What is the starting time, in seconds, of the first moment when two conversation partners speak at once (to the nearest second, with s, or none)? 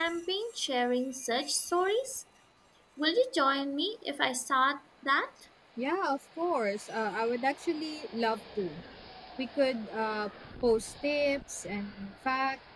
none